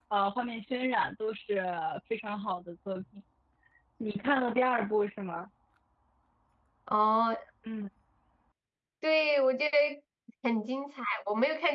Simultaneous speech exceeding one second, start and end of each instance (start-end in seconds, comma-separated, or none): none